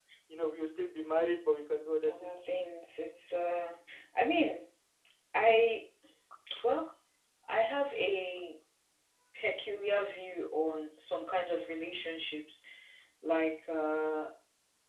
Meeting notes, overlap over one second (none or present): none